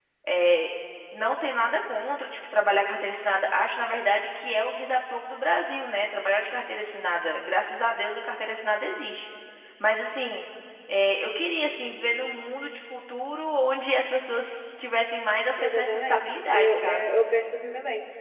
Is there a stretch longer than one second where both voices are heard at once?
Yes, from 15.6 s

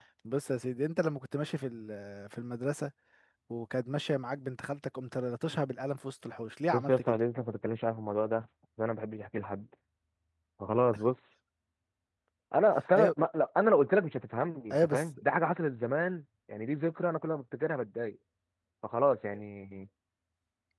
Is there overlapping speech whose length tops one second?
No

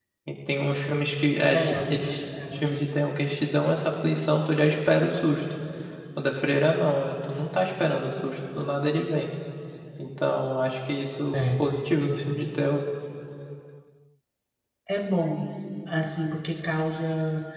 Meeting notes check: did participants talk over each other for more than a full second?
Yes, from 1.5 s

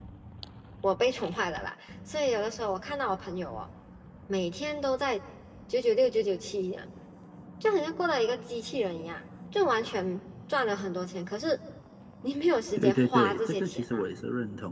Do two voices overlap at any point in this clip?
Yes, from 12.8 s

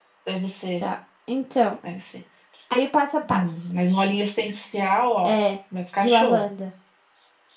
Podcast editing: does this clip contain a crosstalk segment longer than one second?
No

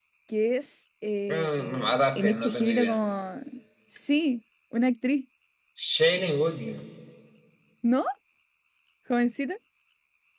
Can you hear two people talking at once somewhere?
Yes, from 1.3 s

